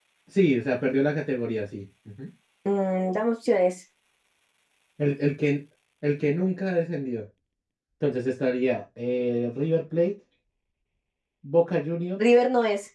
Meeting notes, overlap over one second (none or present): none